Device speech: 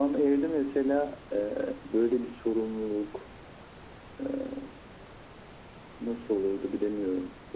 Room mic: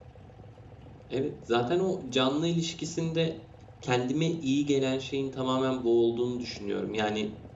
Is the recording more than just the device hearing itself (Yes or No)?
Yes